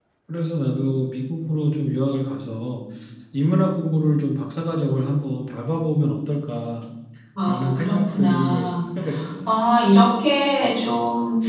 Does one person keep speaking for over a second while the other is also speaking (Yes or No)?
Yes